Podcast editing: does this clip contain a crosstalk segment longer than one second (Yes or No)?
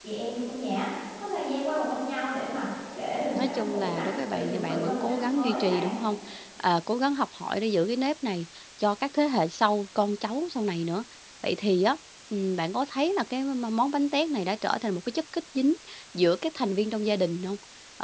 Yes